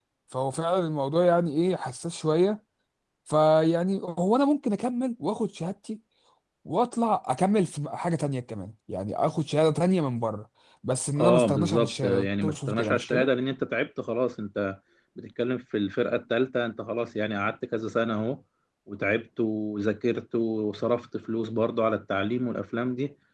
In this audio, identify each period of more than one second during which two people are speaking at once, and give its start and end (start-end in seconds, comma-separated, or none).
11.2-13.3